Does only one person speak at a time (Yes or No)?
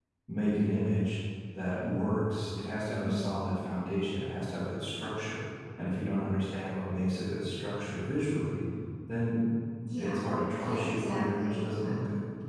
No